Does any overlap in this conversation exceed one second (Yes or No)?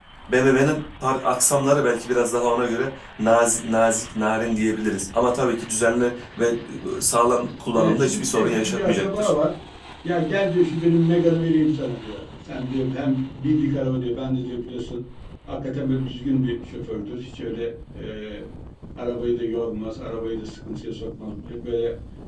Yes